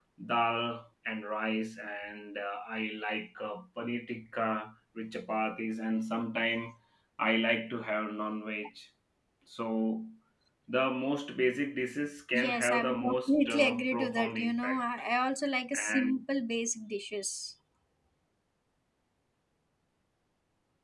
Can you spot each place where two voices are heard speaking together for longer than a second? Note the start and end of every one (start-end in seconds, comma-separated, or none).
12.4-14.8